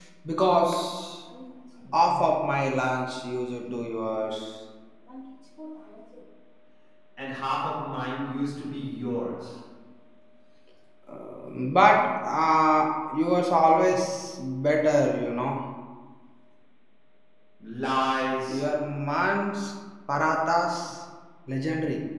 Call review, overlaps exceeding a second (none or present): none